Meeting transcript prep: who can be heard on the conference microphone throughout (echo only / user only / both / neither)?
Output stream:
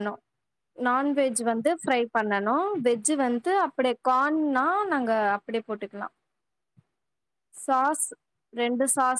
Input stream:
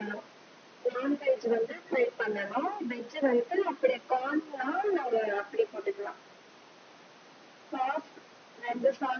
echo only